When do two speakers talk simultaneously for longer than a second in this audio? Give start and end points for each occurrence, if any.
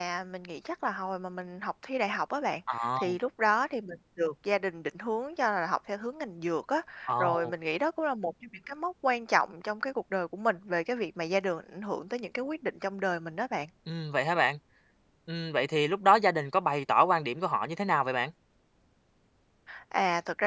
none

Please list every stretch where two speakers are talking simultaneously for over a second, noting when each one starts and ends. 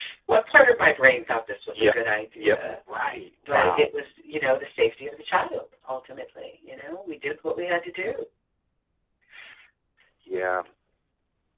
none

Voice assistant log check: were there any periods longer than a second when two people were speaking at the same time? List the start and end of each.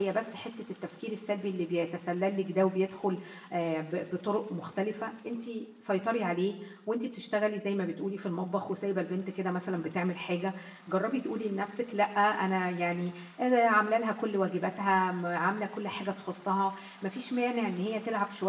none

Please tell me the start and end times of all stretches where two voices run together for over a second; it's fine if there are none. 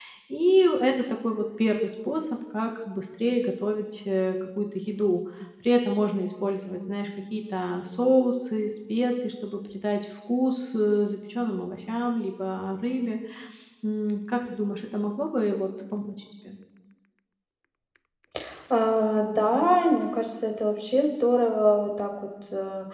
none

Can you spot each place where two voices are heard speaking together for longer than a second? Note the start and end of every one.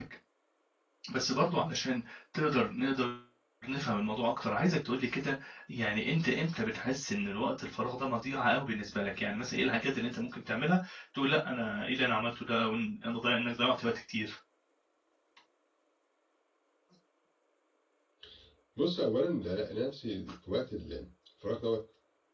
none

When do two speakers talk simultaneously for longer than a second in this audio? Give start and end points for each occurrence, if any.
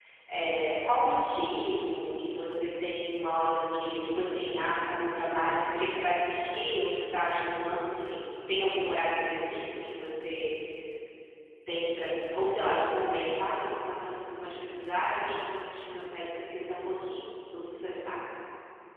none

